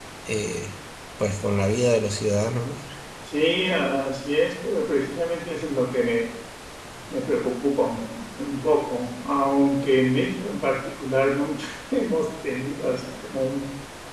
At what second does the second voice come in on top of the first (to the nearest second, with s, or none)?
none